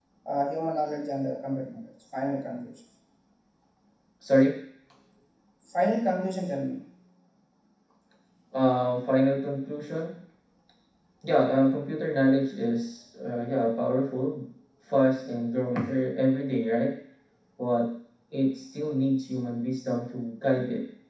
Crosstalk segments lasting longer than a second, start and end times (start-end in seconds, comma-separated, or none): none